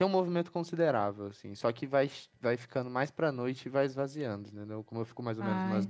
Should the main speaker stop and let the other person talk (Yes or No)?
No